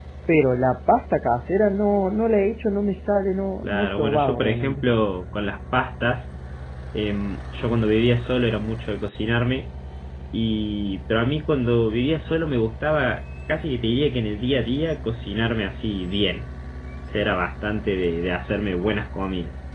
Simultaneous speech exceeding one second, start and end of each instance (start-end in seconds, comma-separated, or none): 3.6-4.8